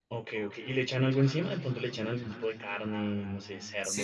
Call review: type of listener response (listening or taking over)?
taking over